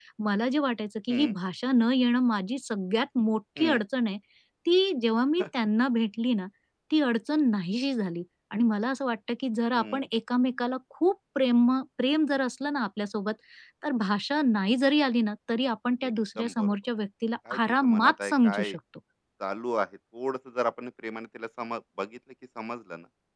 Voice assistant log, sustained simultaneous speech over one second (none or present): present